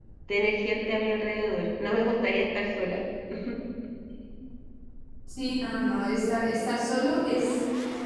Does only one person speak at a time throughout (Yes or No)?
Yes